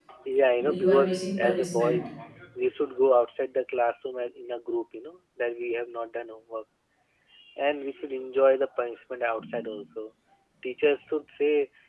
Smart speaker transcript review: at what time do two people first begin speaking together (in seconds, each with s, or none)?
0.6 s